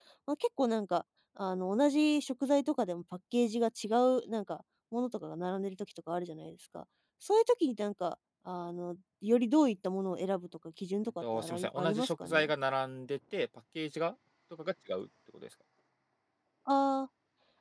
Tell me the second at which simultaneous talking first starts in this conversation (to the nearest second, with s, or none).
11 s